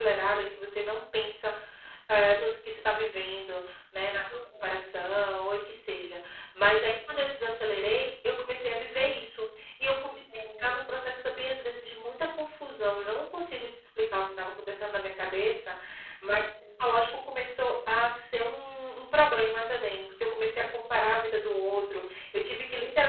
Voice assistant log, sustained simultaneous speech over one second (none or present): none